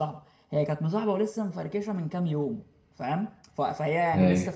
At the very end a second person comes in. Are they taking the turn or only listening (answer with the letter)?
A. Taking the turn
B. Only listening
B